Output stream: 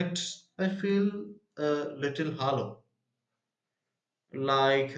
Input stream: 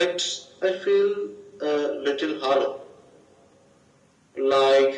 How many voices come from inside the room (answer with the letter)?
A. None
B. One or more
A